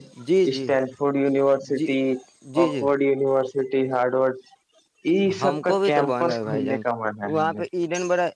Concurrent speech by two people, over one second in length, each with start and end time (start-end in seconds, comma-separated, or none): 5.4-6.8